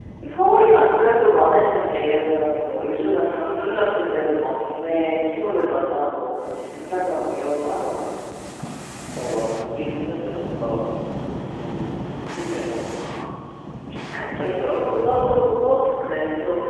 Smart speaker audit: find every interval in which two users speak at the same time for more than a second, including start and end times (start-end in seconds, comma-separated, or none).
14.3-15.7